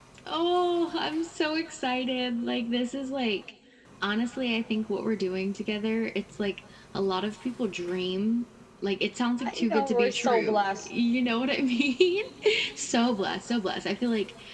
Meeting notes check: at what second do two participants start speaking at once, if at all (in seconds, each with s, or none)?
9.4 s